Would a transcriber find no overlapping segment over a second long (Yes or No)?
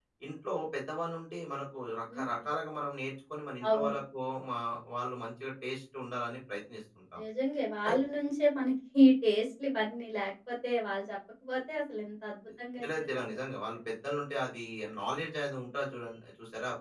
Yes